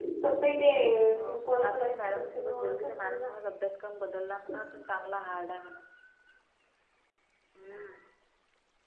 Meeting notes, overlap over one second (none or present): present